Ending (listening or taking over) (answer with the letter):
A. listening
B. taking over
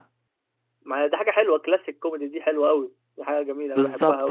B